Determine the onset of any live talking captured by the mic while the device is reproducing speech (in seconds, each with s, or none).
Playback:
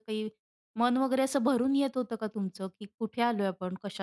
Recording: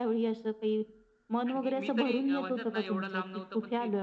1.5 s